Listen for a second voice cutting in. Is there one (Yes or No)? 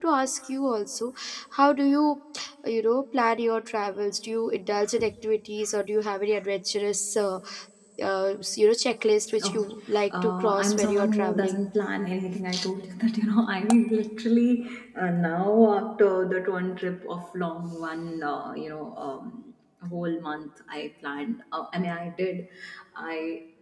Yes